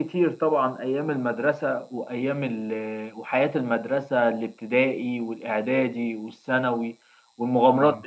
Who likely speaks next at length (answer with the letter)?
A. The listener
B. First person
B